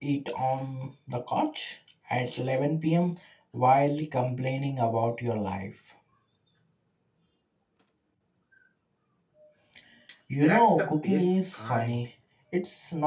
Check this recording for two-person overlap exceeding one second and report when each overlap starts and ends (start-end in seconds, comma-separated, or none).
10.4-12.0